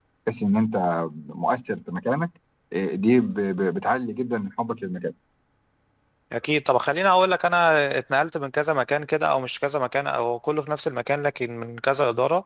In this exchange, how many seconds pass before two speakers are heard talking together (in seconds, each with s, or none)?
none